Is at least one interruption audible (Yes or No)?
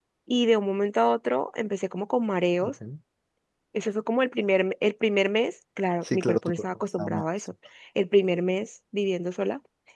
Yes